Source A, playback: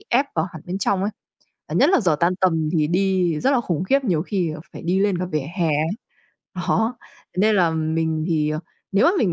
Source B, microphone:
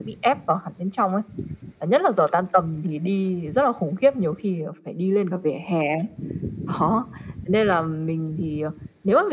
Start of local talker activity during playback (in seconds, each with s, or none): none